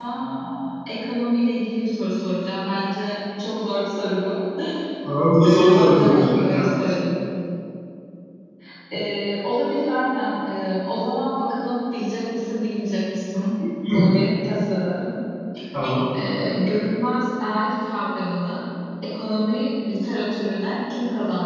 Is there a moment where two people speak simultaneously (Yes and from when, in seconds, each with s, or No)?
Yes, from 5.4 s